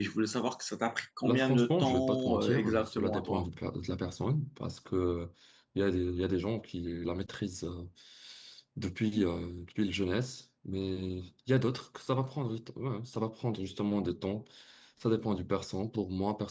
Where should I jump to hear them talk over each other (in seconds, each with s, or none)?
1.2 s